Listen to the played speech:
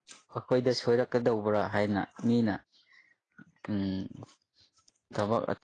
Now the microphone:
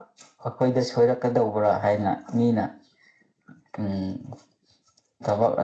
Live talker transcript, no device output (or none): none